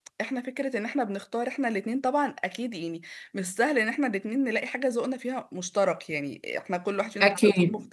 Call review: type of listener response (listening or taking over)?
listening